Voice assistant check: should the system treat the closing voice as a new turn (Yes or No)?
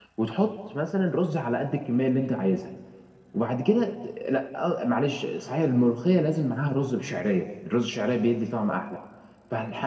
No